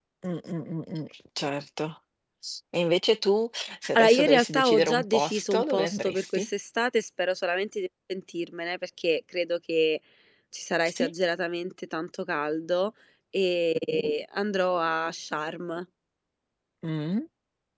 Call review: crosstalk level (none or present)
present